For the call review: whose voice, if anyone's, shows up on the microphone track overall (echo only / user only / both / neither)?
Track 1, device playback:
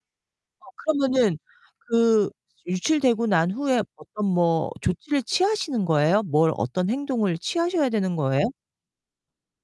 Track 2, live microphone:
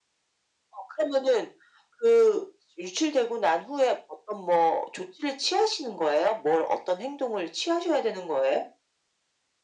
echo only